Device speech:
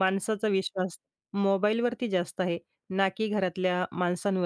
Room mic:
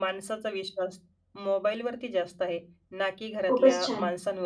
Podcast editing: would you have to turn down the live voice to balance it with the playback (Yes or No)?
Yes